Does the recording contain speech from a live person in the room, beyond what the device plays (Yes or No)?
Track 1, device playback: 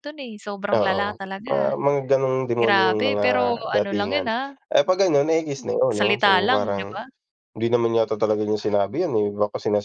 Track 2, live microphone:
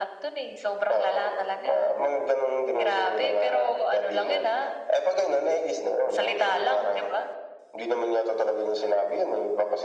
No